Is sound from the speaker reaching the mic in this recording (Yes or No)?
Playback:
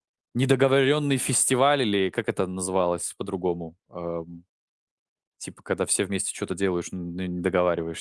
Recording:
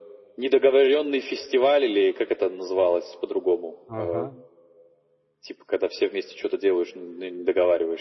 Yes